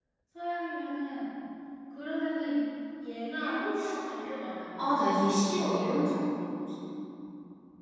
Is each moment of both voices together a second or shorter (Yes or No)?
Yes